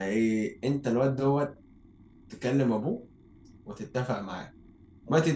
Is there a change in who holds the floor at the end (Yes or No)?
No